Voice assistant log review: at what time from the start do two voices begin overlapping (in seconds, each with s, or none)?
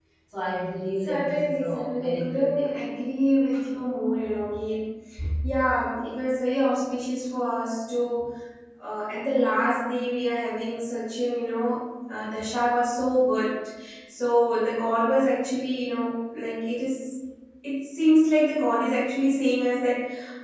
1.1 s